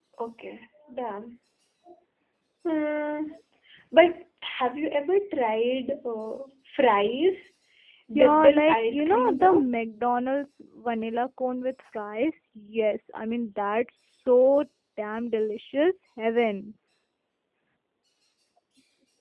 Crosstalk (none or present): present